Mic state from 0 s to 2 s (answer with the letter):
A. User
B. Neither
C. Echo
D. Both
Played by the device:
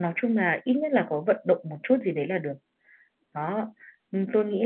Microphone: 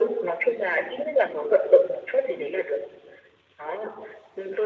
C